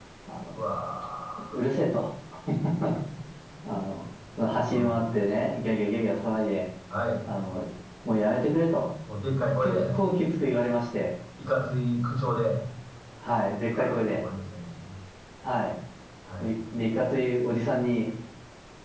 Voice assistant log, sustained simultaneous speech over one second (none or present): none